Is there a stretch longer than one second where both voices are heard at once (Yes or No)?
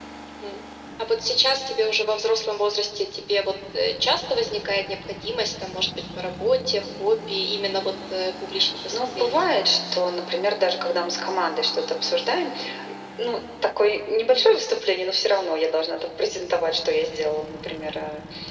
No